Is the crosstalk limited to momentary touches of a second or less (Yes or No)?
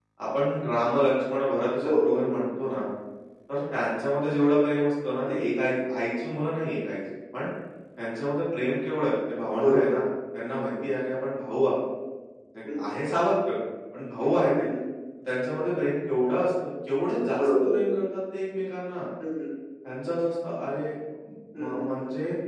Yes